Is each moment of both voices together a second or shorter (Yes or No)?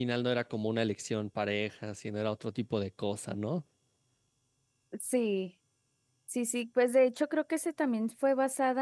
Yes